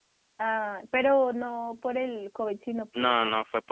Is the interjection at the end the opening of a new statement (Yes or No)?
Yes